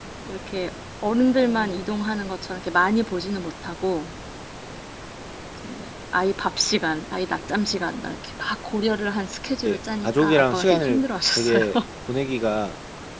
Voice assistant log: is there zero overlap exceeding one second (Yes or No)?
No